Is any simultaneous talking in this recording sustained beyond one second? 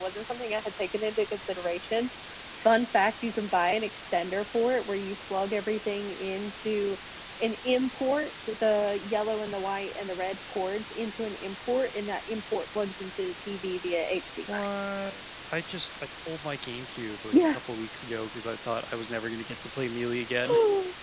No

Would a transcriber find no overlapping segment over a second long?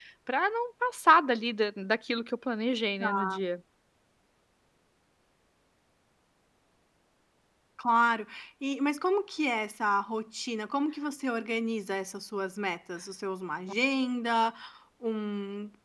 Yes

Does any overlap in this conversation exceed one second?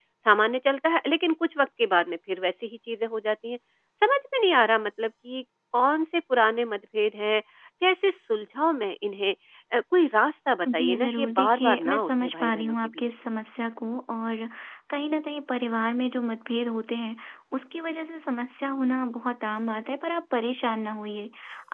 Yes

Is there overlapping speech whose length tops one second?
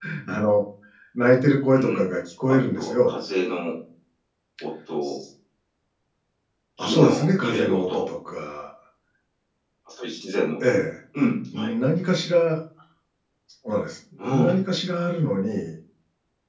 Yes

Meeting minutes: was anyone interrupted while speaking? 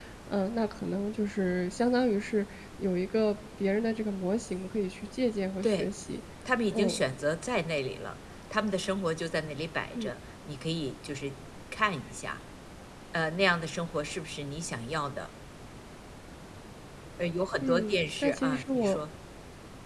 Yes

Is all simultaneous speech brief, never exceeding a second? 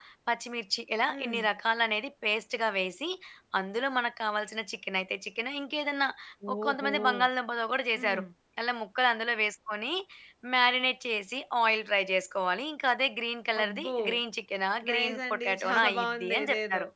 No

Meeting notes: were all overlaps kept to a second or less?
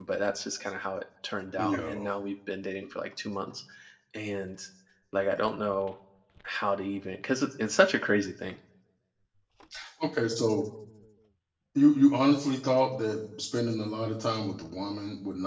Yes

